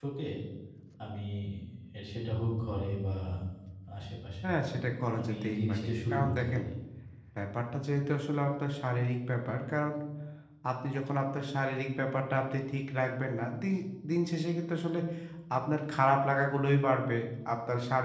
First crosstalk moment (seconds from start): 5 s

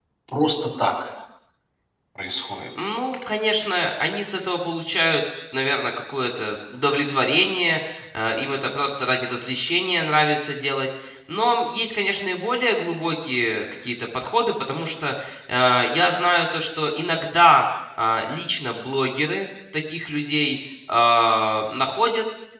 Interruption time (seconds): none

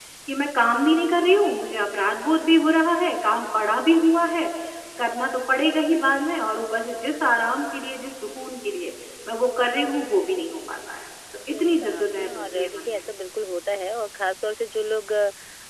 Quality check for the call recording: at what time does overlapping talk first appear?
12 s

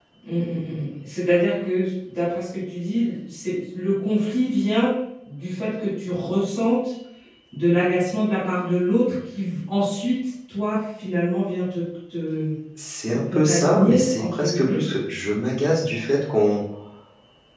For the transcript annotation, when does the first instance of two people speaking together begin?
13 s

